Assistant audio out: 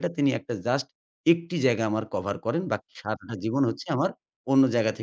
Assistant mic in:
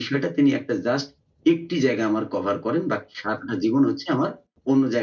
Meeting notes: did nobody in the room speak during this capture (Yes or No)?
Yes